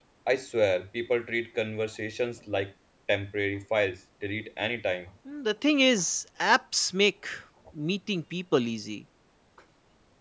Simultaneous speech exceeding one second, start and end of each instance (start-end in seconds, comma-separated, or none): none